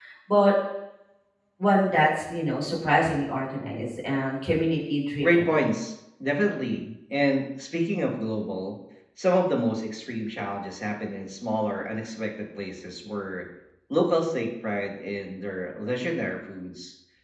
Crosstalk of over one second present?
No

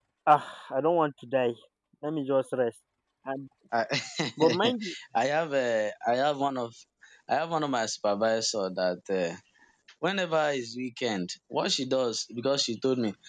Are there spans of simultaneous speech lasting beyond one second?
No

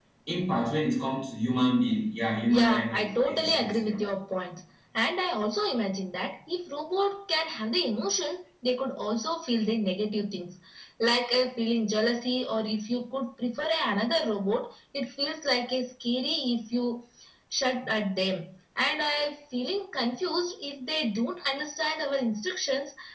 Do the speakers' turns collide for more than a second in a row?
Yes, from 2.5 s

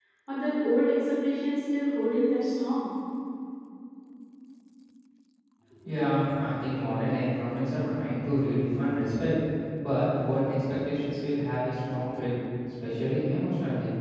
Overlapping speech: No

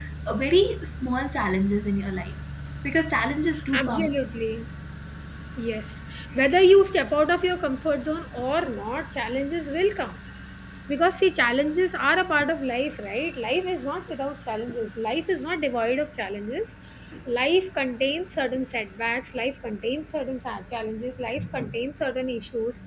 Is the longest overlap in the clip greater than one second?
No

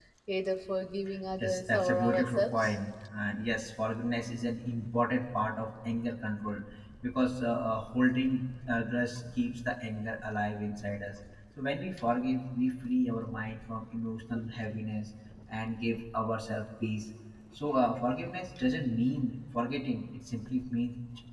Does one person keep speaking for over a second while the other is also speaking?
Yes, from 1.4 s

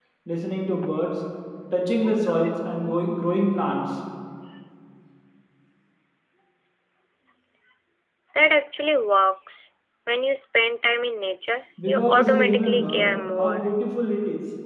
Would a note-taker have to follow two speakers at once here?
Yes, from 11.8 s

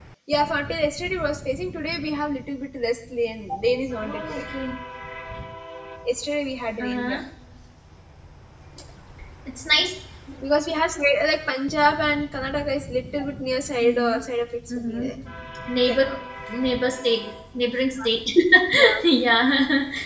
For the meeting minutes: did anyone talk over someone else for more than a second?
No

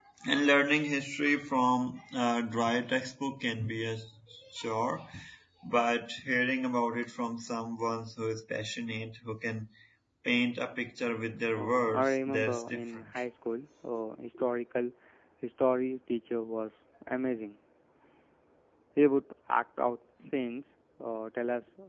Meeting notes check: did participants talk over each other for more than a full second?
Yes, from 11.5 s

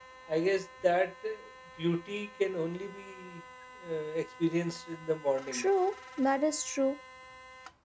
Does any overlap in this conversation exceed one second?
No

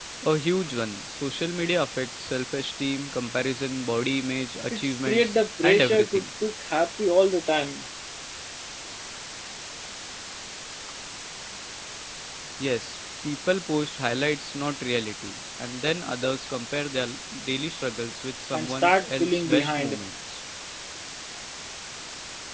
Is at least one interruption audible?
Yes, from 4.7 s

